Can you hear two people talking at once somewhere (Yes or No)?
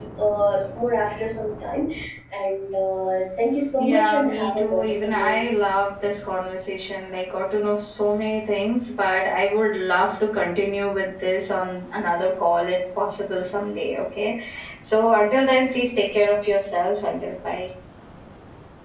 Yes